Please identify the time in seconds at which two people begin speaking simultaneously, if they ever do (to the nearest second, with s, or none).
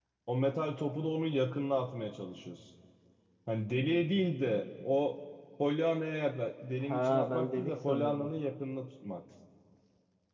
7 s